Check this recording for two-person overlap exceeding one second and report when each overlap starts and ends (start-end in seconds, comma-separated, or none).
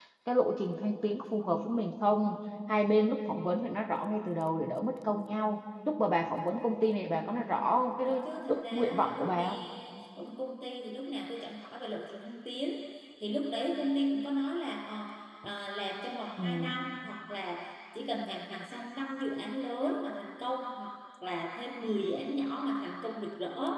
8.0-9.6